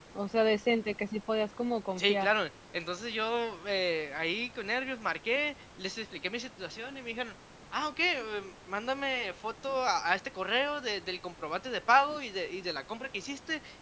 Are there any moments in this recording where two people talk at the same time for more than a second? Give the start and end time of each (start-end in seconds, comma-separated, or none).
none